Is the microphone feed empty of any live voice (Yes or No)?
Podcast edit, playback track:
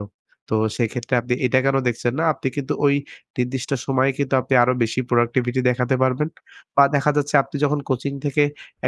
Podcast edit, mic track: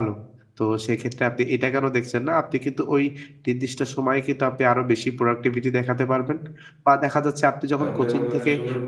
No